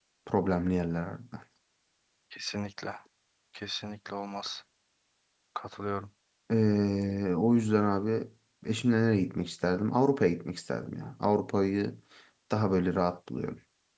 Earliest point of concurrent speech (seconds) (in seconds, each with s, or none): none